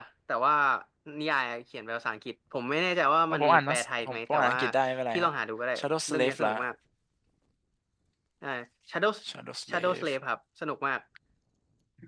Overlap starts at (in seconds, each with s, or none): 3.3 s